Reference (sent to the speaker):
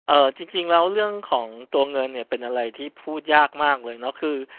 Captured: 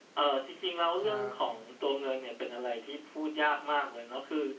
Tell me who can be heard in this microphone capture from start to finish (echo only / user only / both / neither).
both